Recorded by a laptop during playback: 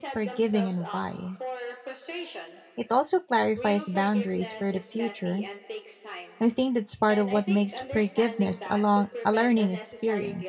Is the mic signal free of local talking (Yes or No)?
No